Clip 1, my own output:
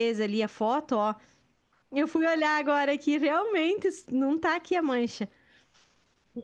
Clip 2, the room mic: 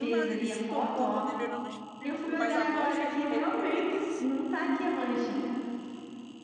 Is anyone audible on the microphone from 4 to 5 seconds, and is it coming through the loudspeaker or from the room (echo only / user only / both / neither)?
both